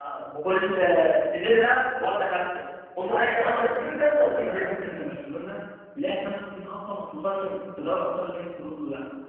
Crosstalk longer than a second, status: present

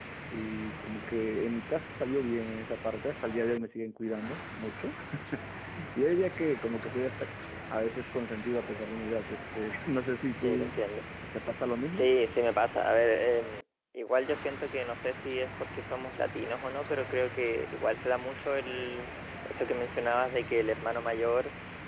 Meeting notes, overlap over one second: none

